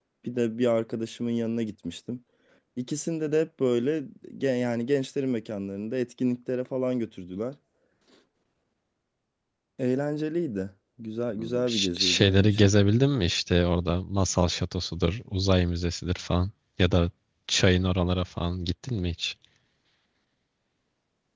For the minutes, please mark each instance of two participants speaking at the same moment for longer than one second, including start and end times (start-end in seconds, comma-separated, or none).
11.4-12.7